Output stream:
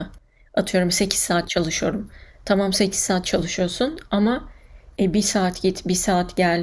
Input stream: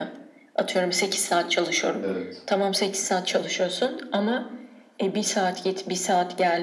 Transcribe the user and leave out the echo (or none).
Evet.